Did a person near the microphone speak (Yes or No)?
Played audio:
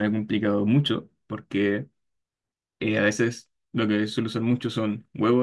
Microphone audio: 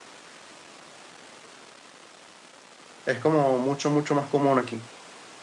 Yes